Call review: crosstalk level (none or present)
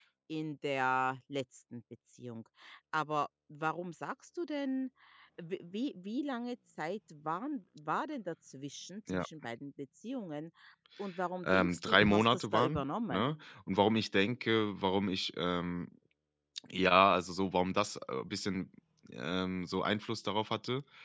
present